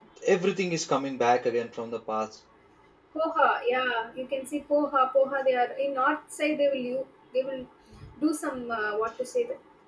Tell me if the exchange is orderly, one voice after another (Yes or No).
Yes